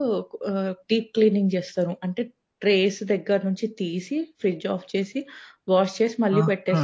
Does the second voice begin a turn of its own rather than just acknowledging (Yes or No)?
Yes